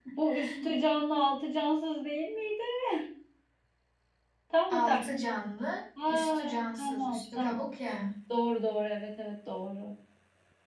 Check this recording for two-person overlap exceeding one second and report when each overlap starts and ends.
6.1-7.7

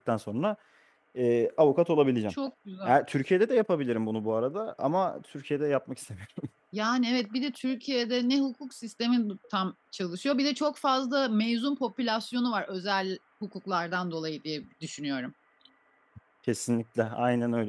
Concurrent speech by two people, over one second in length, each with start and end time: none

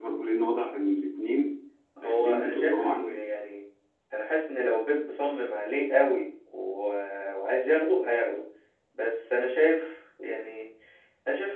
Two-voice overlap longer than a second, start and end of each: 2.0-3.2

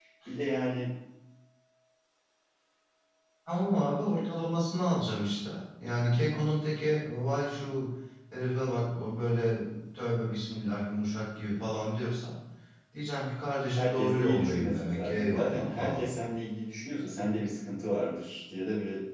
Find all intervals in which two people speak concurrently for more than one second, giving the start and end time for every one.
13.8-16.0

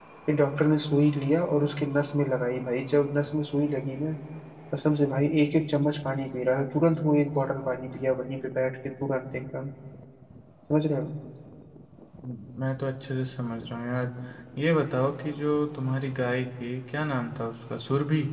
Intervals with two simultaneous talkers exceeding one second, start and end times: none

